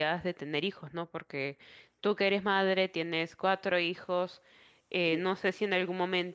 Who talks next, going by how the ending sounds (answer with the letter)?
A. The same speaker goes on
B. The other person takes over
A